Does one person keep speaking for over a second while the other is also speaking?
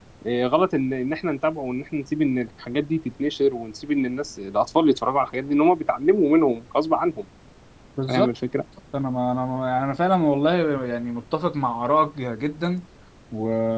No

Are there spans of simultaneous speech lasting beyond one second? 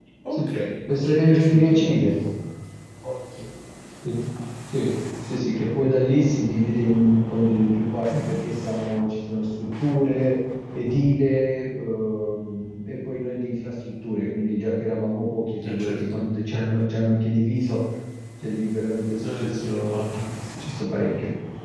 Yes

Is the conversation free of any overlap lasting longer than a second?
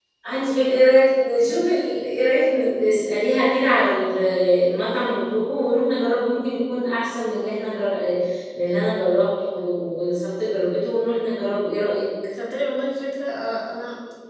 Yes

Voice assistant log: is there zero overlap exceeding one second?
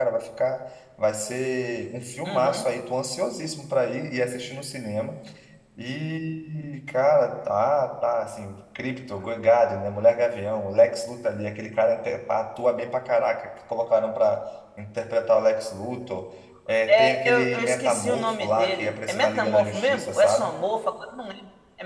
No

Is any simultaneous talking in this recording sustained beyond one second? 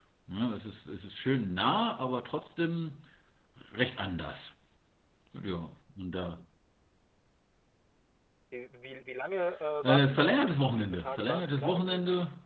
Yes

